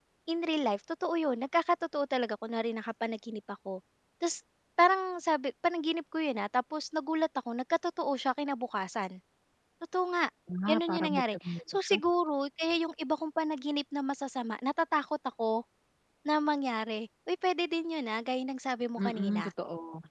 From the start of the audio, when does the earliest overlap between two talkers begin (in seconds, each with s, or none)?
10.7 s